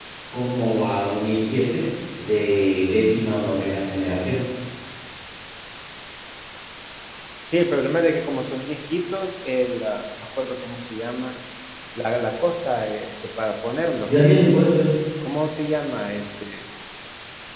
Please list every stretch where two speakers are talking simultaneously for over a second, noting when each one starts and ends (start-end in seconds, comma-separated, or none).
none